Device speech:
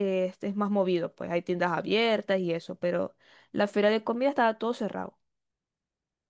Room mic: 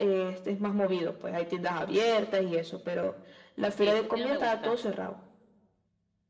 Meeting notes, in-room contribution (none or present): present